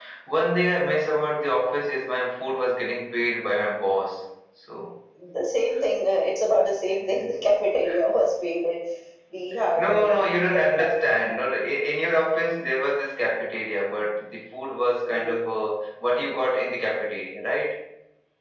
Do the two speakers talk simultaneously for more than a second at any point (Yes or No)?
Yes